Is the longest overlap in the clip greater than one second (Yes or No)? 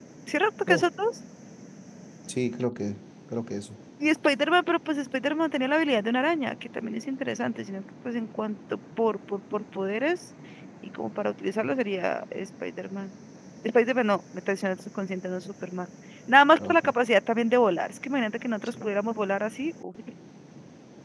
No